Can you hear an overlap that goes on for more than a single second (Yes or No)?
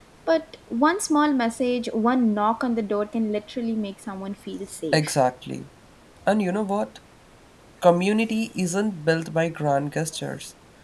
No